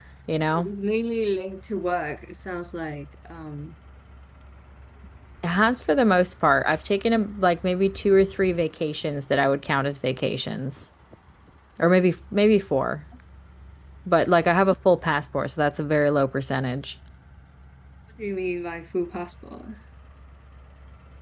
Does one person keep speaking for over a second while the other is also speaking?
No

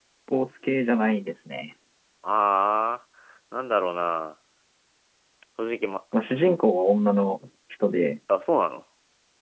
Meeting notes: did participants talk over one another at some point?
No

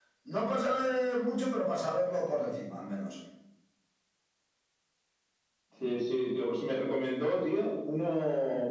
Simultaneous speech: No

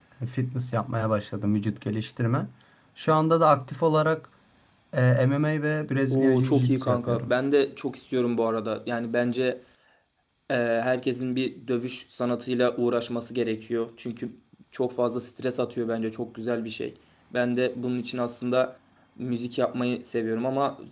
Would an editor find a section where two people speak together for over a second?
Yes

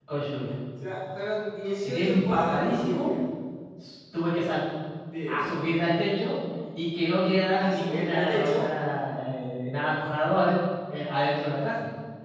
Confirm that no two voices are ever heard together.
No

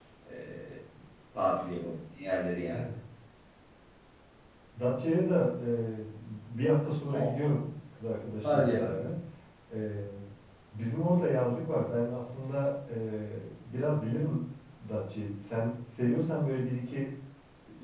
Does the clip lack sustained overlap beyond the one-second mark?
Yes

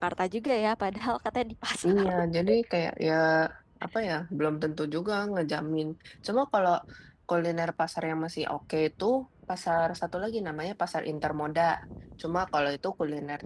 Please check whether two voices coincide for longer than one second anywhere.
No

